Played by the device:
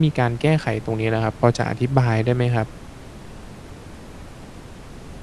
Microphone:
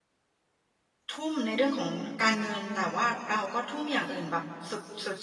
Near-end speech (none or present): present